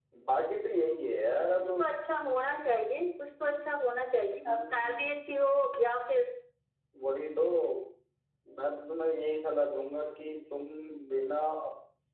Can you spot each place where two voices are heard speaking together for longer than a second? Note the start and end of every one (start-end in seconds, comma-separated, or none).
none